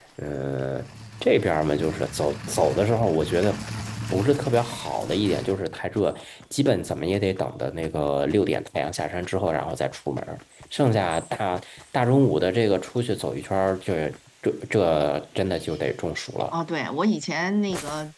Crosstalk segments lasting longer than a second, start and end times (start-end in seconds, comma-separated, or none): none